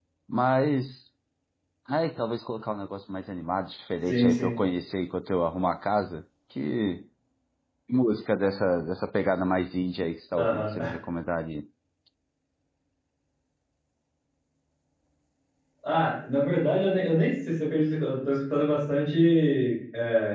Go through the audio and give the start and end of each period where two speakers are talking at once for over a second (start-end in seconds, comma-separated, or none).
none